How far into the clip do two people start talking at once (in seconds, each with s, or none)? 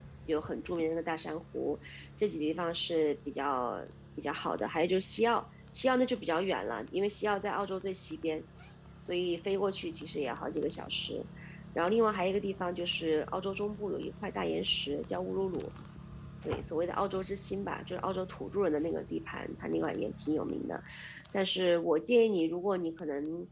none